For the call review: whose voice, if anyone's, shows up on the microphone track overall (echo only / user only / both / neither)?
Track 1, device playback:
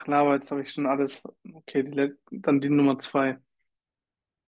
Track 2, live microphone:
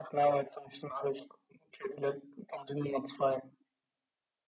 echo only